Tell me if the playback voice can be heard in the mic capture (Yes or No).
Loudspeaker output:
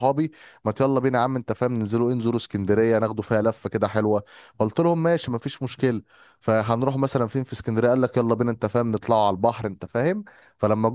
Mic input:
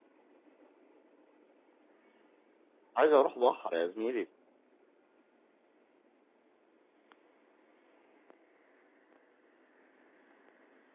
No